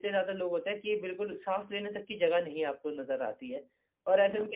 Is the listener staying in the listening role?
Yes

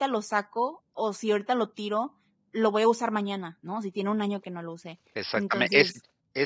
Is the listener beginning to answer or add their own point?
Yes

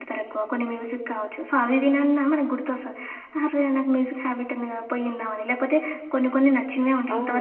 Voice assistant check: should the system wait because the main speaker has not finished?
No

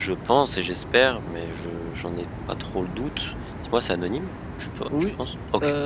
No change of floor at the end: No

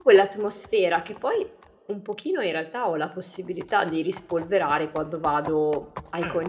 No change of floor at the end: Yes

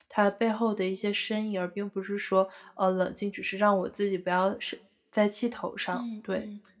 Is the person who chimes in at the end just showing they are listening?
No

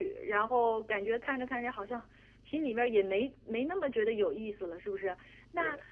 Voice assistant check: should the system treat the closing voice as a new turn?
No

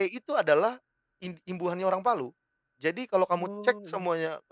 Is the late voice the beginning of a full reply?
No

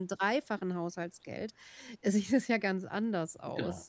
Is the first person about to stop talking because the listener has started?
Yes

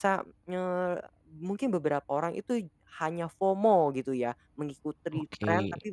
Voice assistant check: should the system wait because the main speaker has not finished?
Yes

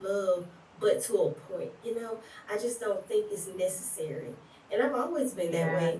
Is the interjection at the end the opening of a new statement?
No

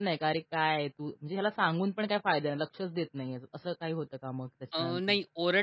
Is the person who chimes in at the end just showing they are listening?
No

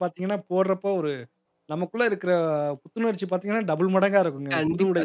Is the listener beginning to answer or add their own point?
Yes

